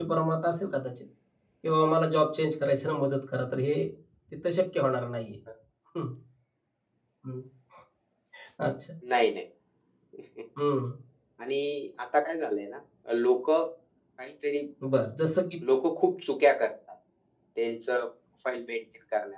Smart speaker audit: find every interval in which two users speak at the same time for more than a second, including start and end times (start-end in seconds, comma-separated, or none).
none